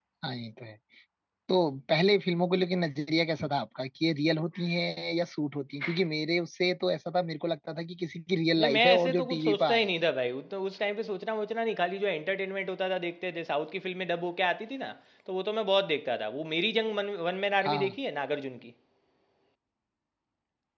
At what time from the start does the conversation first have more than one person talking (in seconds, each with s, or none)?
8.6 s